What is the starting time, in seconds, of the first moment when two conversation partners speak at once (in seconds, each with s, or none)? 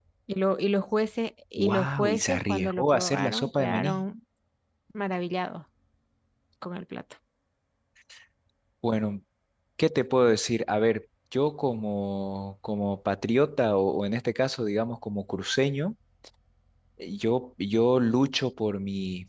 1.6 s